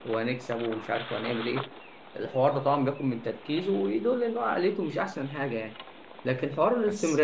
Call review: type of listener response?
listening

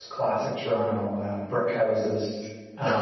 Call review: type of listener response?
listening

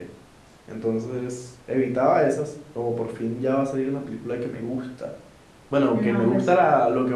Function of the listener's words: listening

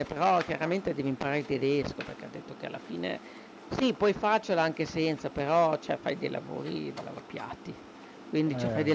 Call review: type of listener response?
listening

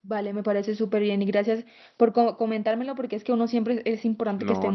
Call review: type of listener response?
taking over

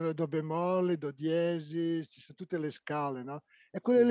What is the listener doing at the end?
listening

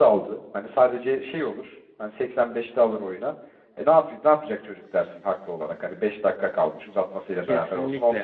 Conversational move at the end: taking over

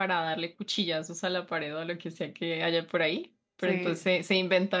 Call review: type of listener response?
listening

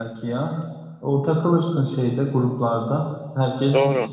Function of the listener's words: listening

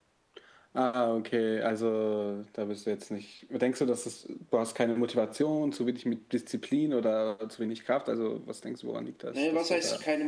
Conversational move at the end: taking over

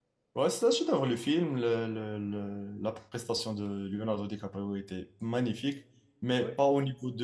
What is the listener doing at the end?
listening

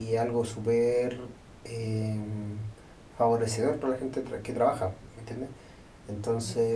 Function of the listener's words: listening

